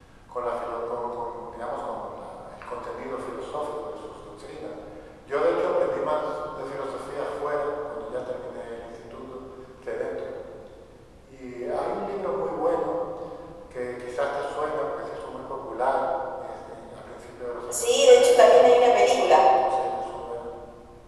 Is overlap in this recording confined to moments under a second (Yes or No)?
No